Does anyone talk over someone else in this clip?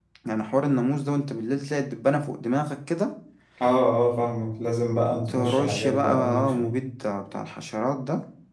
Yes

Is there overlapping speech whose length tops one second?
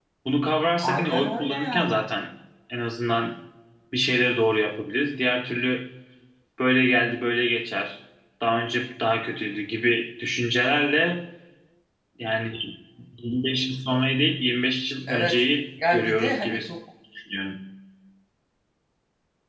Yes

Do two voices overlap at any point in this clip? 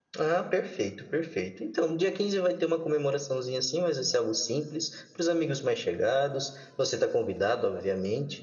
No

